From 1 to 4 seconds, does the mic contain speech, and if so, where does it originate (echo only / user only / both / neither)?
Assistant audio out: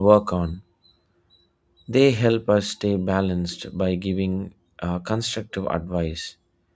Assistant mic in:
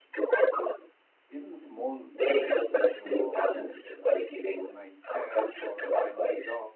both